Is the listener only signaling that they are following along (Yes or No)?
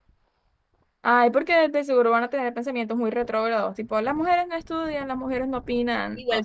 No